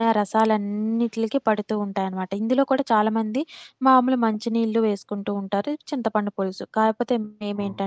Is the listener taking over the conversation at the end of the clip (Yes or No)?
No